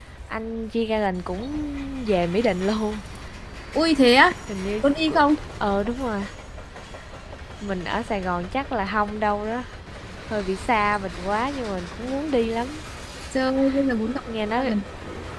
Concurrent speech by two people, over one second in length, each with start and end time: none

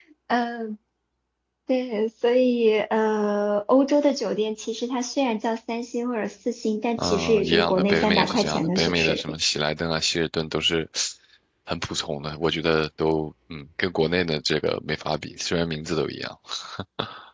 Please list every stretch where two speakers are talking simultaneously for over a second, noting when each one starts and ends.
7.0-9.2

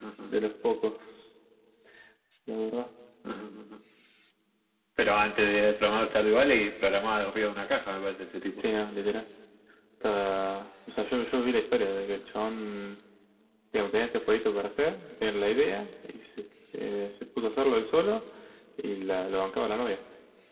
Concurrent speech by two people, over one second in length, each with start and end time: none

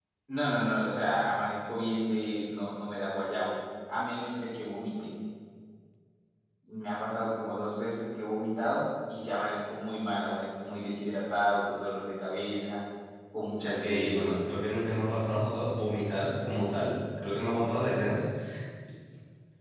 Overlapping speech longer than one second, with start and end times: none

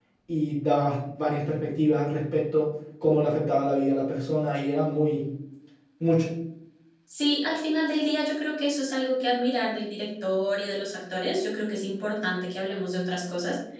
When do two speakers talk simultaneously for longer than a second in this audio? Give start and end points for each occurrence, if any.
none

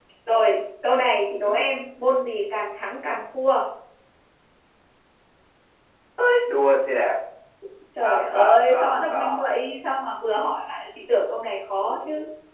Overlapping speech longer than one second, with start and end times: 8.0-9.2

